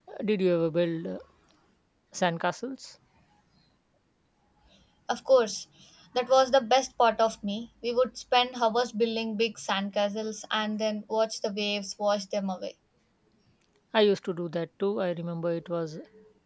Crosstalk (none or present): none